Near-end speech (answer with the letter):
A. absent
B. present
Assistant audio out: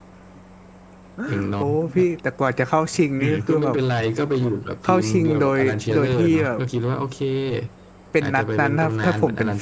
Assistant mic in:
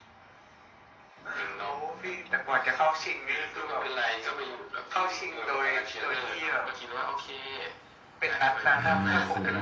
B